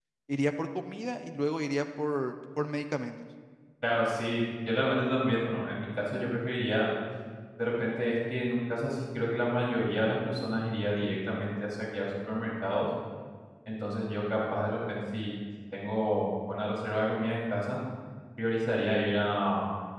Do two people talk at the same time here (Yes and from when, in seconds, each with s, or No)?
No